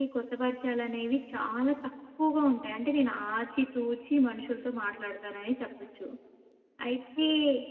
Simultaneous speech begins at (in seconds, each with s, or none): none